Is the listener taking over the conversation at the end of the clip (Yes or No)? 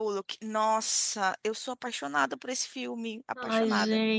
Yes